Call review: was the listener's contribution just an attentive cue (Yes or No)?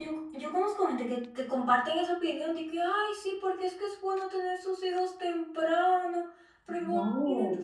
Yes